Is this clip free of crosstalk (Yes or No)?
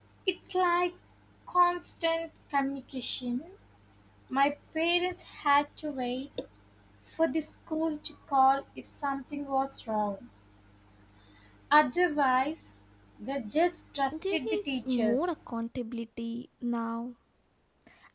No